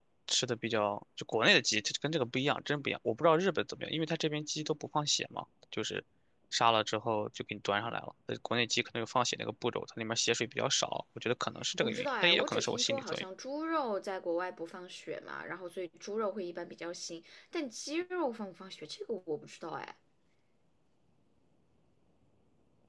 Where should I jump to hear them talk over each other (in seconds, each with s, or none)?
11.8 s